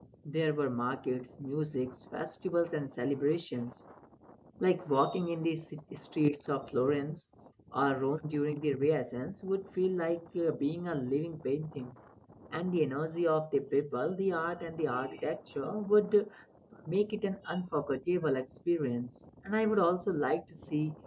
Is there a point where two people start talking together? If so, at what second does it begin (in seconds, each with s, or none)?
none